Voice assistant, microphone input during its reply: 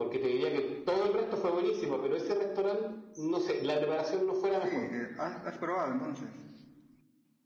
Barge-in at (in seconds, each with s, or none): 4.5 s